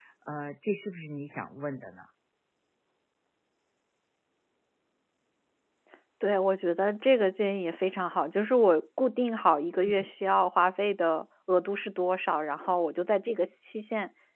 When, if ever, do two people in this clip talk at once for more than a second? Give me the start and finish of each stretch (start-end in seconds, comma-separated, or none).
none